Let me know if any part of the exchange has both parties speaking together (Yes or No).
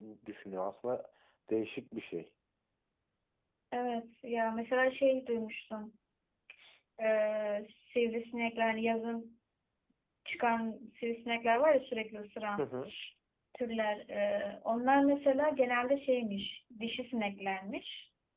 No